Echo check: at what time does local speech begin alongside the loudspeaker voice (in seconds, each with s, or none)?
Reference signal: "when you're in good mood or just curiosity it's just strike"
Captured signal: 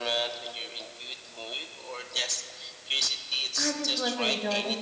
3.5 s